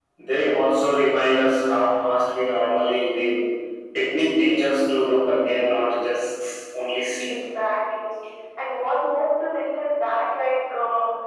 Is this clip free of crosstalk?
Yes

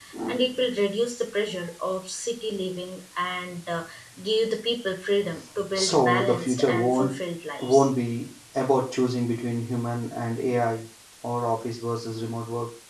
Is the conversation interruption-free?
No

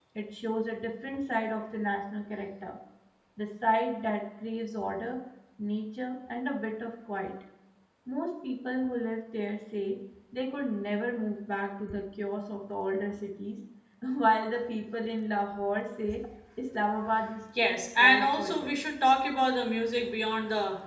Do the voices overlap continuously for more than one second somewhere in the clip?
Yes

